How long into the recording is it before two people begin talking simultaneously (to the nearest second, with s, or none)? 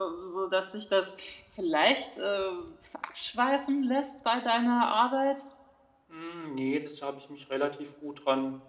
none